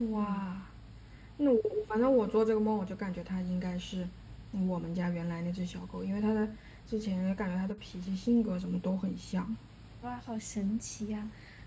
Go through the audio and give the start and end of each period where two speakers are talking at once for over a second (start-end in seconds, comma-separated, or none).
none